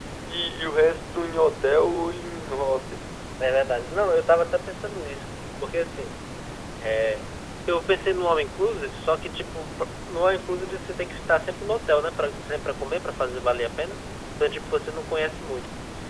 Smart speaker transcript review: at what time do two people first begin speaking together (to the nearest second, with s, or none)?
none